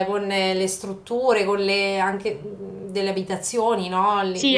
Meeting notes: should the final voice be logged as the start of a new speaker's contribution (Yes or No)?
Yes